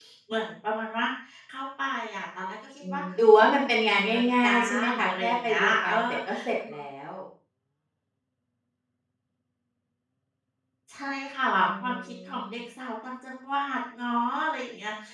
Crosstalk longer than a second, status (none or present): present